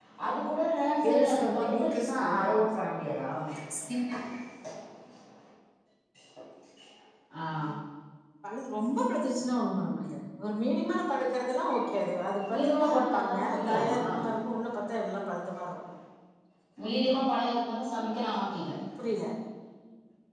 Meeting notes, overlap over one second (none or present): present